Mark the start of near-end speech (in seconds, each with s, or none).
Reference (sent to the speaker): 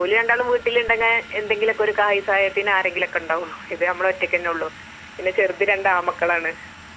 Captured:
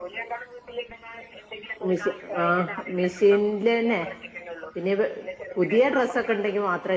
1.9 s